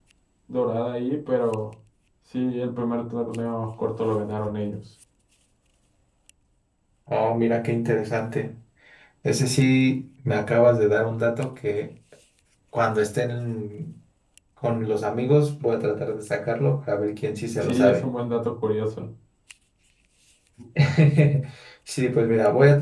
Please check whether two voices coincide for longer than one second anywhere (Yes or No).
No